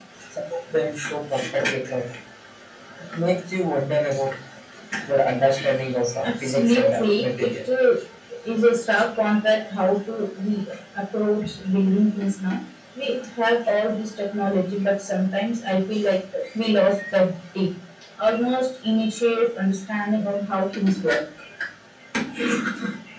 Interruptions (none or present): present